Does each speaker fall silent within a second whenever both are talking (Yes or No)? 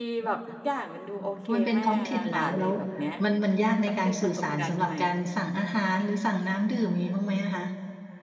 No